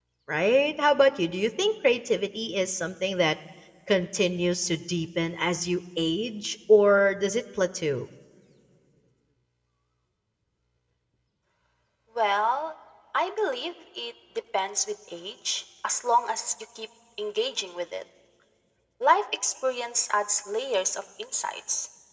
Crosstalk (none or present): none